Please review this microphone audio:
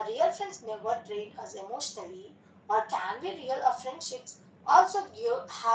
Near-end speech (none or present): none